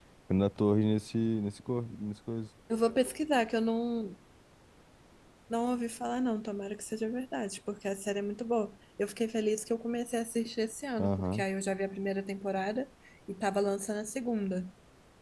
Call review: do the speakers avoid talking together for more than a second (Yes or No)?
Yes